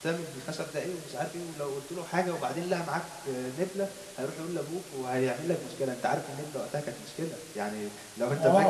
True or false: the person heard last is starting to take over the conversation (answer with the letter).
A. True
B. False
A